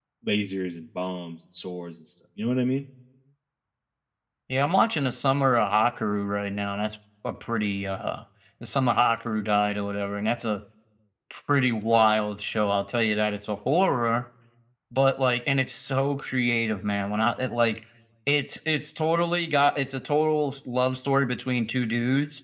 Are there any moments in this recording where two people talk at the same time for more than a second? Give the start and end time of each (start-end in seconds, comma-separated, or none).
none